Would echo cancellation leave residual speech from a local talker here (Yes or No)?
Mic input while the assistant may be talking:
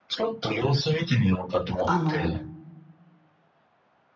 Yes